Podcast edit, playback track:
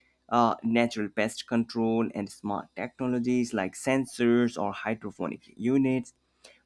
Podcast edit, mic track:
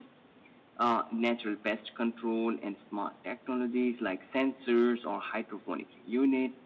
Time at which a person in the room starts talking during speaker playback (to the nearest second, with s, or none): none